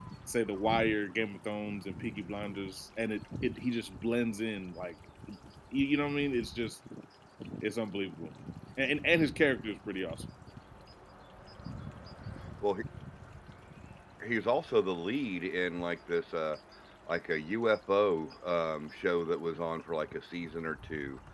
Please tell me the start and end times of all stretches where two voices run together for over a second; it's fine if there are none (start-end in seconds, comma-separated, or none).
none